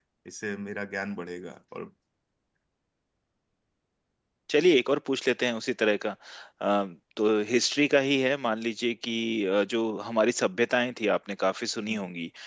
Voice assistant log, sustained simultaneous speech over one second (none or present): none